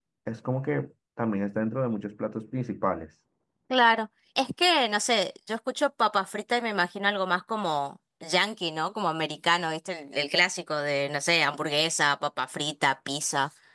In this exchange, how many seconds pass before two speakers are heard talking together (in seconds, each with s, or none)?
none